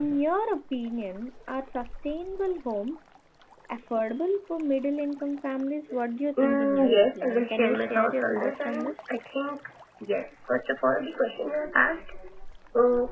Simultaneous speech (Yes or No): Yes